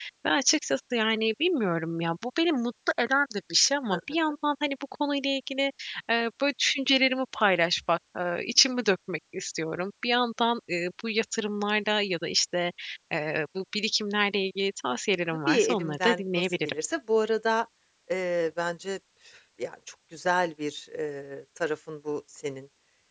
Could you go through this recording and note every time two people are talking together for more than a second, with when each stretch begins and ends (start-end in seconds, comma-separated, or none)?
15.5-16.7